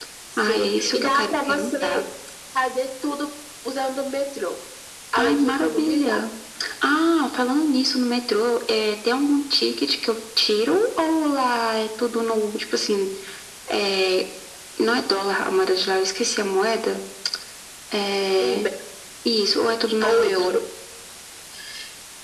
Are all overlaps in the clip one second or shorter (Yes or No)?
No